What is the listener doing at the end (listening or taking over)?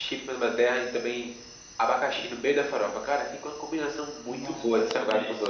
taking over